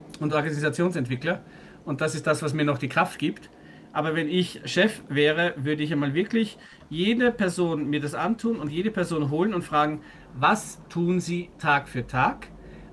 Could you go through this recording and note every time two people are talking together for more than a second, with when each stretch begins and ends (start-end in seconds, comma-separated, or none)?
none